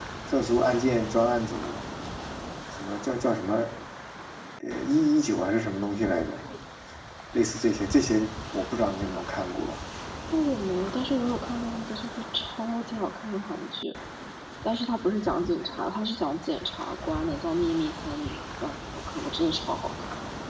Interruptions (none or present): none